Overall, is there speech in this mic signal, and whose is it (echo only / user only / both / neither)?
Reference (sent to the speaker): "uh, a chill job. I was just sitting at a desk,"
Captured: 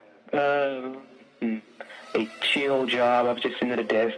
echo only